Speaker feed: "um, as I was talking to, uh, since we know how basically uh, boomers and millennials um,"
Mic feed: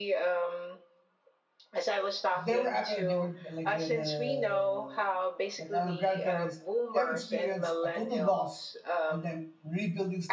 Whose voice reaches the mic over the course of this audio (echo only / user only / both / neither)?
both